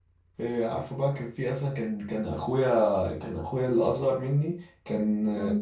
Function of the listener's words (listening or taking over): listening